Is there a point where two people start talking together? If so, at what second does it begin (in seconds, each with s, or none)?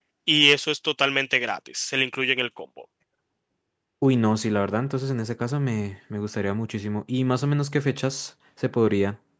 none